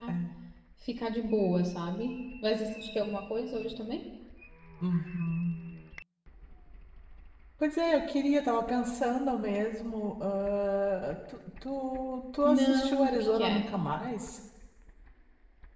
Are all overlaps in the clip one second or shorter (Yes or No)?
No